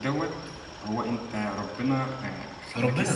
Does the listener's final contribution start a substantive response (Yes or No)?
Yes